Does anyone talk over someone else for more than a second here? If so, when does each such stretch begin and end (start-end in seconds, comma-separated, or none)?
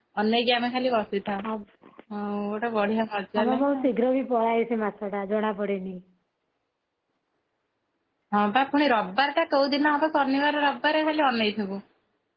none